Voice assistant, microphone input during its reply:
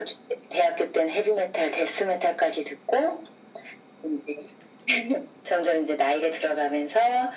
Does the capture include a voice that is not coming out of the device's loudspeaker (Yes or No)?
No